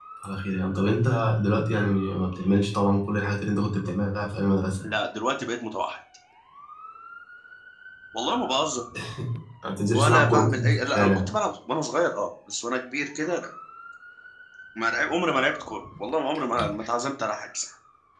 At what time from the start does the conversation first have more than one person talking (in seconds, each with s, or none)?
9.9 s